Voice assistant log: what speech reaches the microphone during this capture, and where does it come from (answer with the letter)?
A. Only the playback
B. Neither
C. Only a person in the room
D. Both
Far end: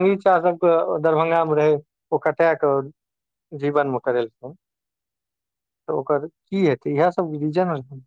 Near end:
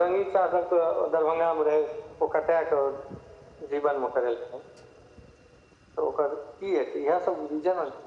A